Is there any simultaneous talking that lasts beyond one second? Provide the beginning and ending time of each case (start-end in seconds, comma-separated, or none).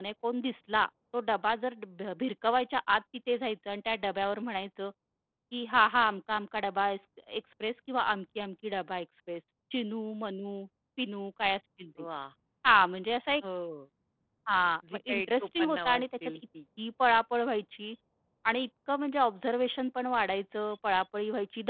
15.1-16.4